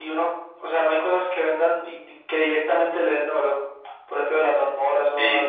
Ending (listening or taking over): taking over